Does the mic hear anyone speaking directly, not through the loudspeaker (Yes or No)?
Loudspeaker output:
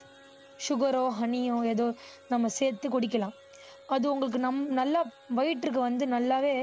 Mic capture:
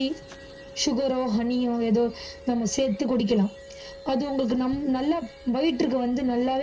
No